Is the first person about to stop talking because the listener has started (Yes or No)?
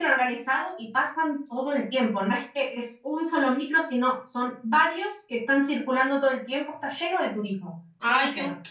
Yes